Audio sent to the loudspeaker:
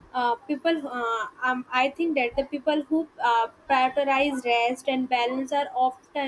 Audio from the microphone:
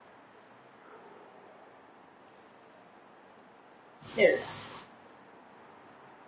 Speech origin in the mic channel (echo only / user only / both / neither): user only